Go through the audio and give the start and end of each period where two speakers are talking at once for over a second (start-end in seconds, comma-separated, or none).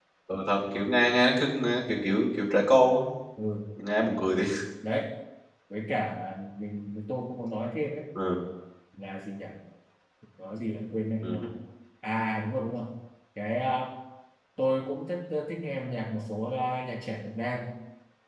none